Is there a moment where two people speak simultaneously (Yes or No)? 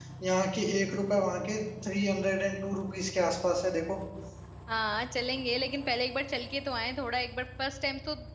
No